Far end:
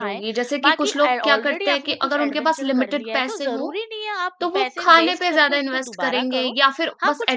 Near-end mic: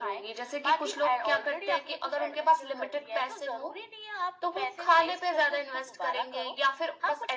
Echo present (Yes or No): Yes